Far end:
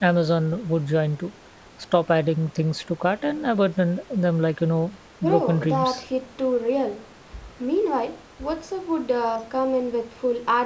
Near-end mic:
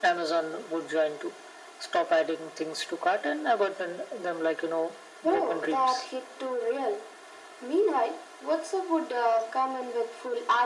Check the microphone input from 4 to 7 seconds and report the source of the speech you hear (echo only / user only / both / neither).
echo only